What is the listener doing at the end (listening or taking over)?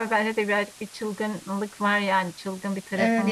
taking over